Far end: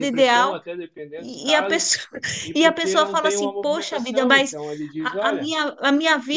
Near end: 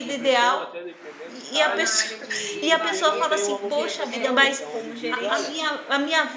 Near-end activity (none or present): present